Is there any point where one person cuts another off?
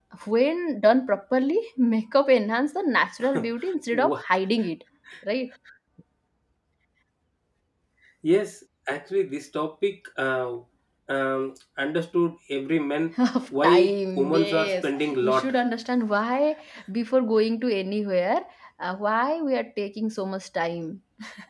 Yes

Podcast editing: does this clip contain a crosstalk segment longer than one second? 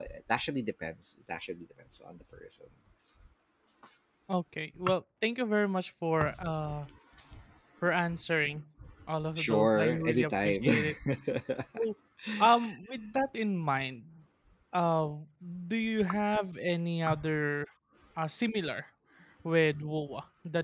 Yes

